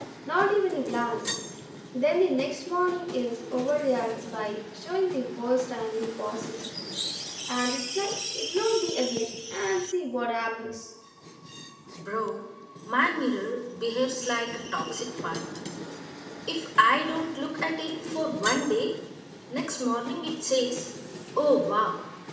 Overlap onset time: none

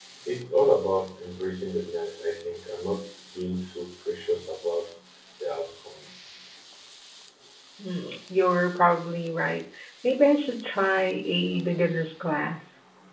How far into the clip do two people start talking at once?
none

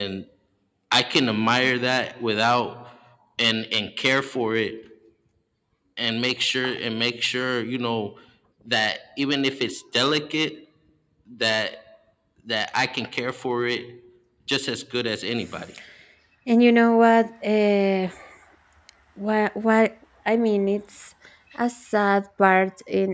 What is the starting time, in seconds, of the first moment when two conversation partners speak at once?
none

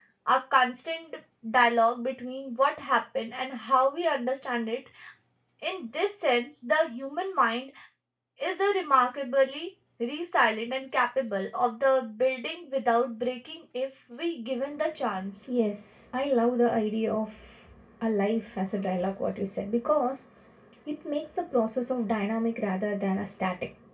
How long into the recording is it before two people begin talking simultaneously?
none

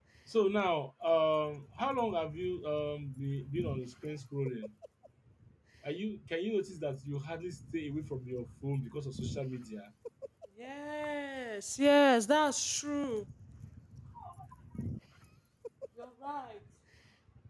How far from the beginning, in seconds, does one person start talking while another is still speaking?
none

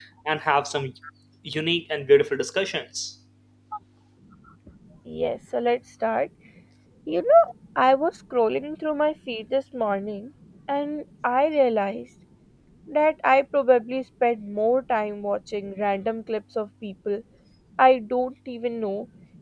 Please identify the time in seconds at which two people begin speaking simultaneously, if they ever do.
none

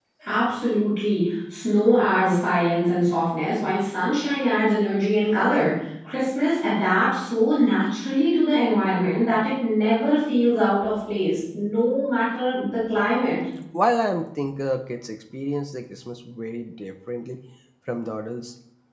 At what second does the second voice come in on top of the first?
none

